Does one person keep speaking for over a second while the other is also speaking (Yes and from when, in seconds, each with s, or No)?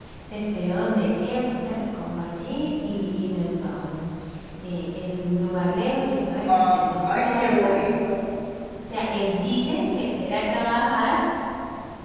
Yes, from 6.5 s